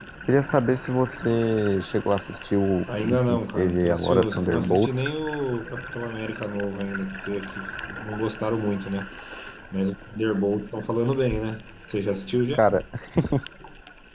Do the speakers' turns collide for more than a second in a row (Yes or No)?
Yes